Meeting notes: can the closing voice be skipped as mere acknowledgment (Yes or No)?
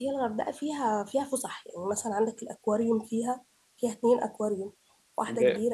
No